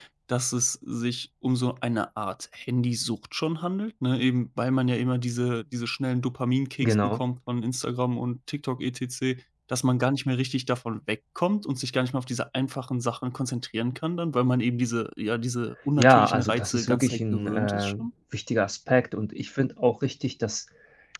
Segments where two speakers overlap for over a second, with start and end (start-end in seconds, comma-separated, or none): 16.0-17.9